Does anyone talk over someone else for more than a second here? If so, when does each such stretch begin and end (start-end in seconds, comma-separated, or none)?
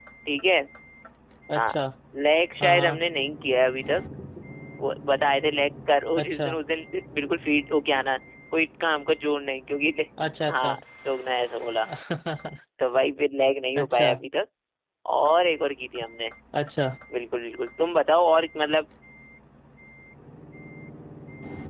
none